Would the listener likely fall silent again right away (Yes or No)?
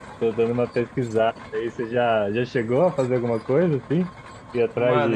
No